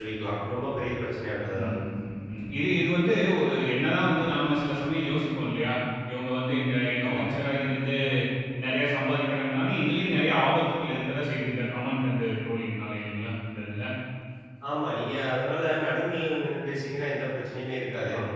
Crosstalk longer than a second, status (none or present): none